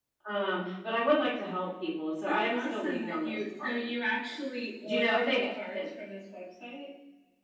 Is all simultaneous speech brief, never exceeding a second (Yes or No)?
No